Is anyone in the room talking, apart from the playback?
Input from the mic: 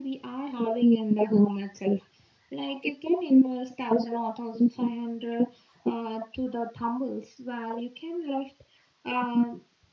No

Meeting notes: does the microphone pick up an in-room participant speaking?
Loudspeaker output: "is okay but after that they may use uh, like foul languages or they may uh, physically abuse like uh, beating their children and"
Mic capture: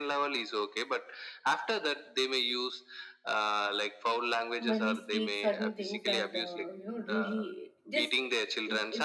Yes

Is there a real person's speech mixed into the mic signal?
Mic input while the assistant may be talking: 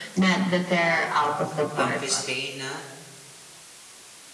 Yes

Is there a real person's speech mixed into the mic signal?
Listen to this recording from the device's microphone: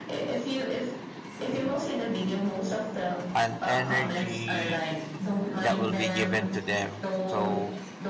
Yes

